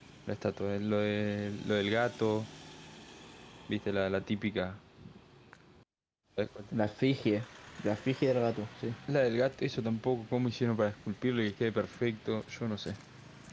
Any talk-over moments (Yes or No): No